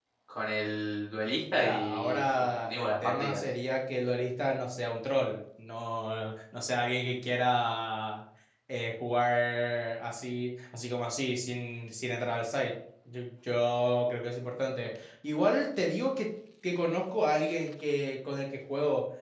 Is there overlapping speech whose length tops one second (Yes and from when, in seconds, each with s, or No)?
Yes, from 1.5 s